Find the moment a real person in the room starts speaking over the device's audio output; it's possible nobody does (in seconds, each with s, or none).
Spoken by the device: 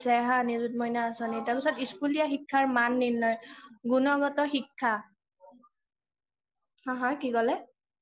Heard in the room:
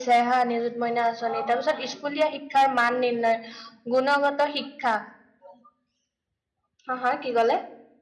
none